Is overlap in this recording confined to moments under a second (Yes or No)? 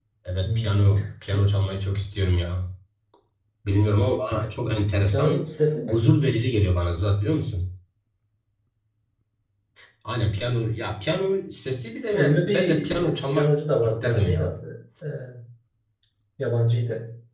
No